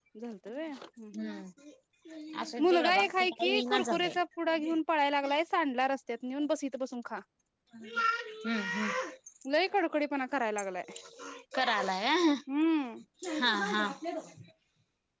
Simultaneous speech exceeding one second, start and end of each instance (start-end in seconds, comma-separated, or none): 2.6-4.1